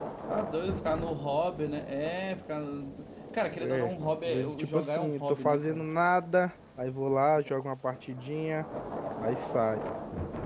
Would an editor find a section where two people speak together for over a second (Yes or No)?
Yes